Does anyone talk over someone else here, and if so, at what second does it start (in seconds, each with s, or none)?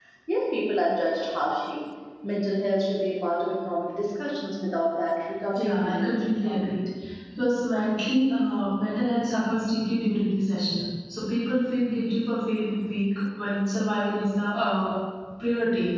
5.6 s